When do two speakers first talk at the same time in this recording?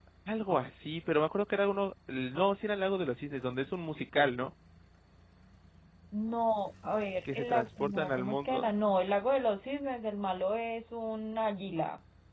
7.2 s

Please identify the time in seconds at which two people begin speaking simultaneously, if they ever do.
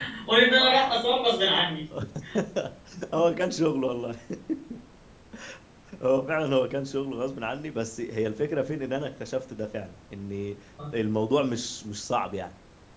none

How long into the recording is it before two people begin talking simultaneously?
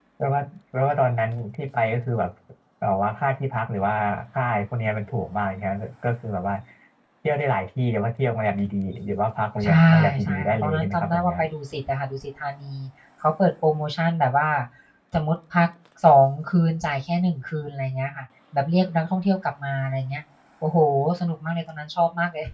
9.6 s

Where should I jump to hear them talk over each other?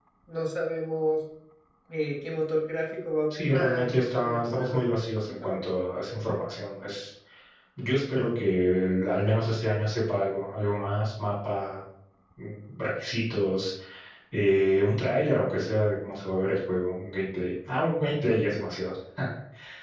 3.3 s

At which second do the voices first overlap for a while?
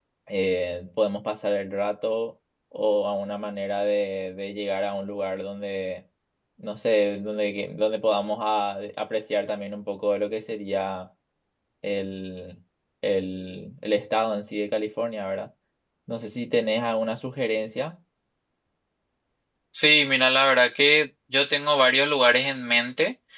none

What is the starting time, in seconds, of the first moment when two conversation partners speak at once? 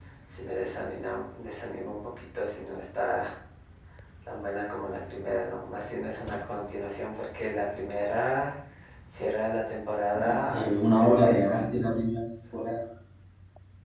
10.2 s

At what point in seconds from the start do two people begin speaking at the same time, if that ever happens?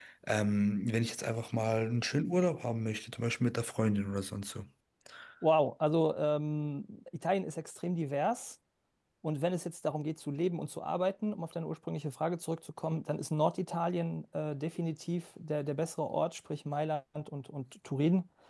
none

